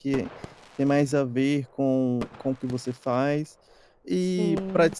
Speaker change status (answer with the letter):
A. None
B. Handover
A